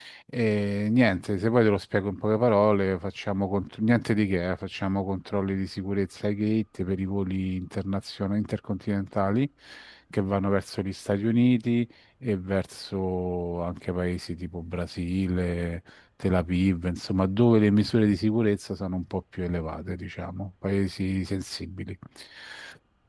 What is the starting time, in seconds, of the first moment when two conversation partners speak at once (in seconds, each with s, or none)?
none